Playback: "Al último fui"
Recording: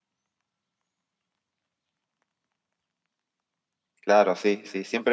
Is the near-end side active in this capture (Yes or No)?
Yes